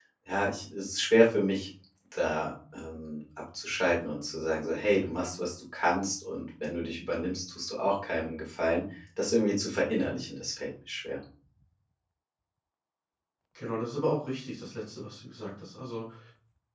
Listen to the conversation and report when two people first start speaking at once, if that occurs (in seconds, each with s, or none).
none